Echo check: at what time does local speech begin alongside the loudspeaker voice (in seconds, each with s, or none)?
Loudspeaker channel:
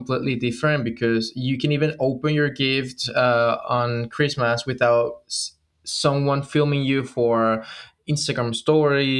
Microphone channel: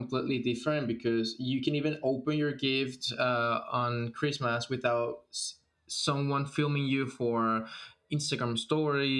none